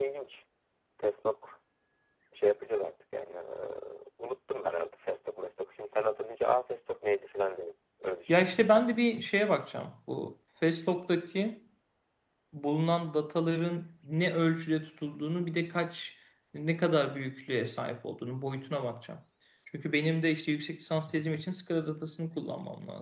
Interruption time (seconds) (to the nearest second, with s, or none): none